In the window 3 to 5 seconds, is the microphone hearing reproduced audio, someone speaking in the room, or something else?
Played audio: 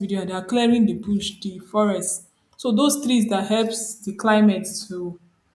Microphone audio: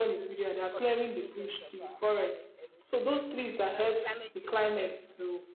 both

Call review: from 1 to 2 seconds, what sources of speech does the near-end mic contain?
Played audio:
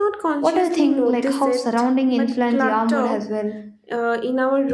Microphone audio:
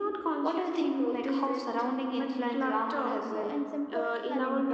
echo only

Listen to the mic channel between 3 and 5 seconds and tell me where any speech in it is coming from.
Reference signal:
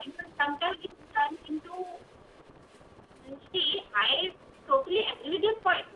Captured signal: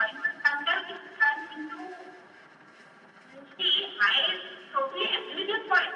echo only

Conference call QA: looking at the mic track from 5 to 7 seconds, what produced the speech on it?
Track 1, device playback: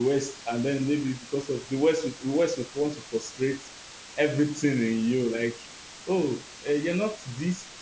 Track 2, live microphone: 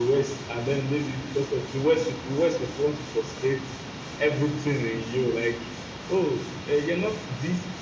echo only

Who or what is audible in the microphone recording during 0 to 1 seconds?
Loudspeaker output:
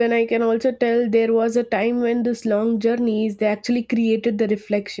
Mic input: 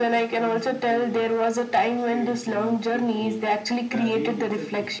both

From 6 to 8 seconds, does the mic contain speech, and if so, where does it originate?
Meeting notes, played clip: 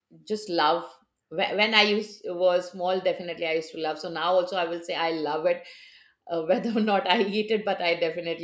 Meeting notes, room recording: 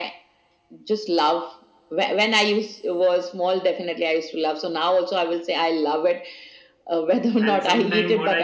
both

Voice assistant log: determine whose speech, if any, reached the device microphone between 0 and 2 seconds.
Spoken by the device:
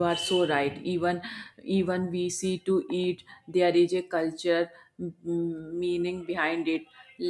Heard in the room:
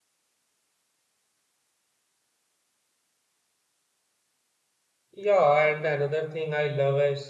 neither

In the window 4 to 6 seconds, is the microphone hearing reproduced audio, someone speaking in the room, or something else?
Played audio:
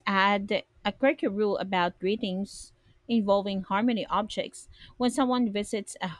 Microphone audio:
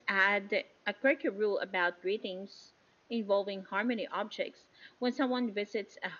echo only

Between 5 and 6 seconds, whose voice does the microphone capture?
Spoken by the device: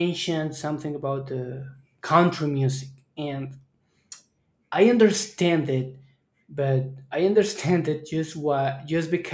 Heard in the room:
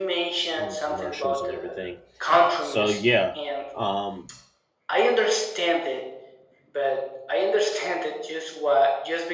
echo only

